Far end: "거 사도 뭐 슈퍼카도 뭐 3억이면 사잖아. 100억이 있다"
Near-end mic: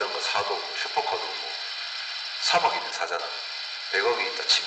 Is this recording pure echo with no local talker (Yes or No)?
Yes